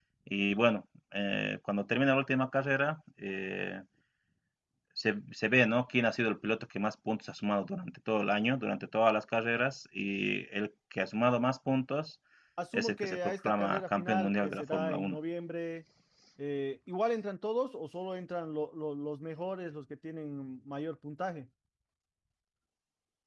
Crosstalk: present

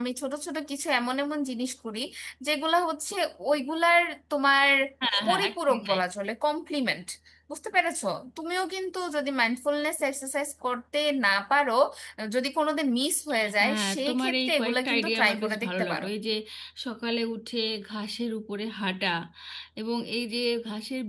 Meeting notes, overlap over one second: present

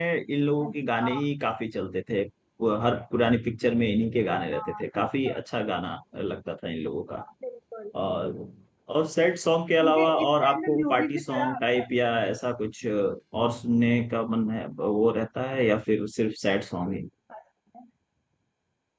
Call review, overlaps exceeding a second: present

